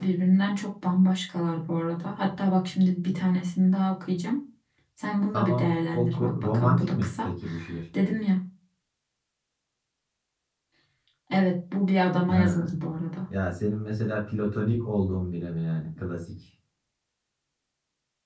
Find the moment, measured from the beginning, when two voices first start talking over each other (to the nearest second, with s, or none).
5 s